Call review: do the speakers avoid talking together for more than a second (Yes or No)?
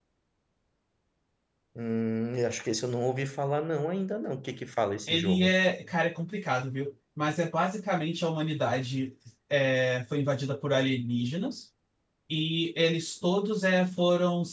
Yes